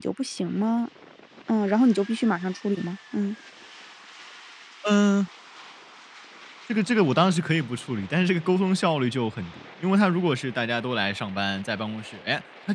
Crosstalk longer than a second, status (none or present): none